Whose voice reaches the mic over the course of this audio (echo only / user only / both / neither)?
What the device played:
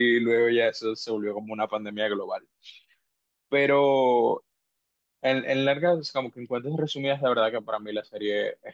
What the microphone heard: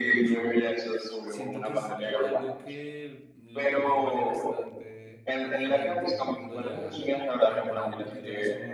both